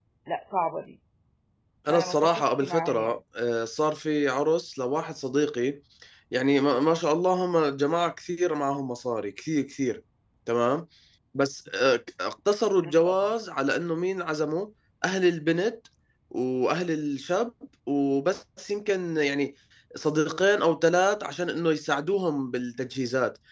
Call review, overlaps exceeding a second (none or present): present